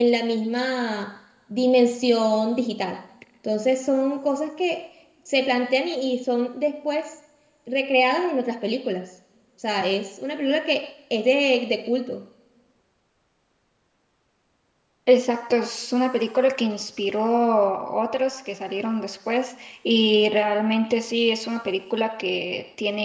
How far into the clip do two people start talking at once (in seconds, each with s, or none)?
none